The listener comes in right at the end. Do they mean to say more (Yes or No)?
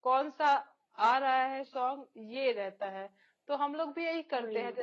No